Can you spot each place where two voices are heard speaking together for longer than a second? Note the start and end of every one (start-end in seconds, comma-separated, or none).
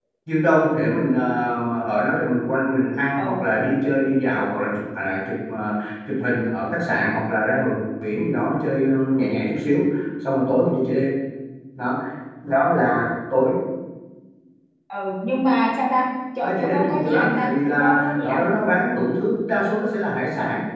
16.4-18.5